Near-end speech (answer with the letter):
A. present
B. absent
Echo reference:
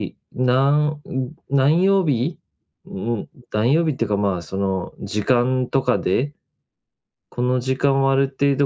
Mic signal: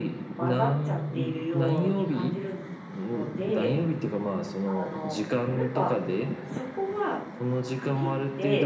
A